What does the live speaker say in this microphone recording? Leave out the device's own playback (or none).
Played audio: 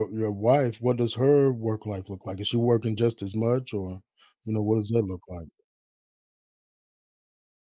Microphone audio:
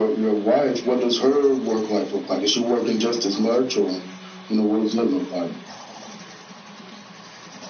none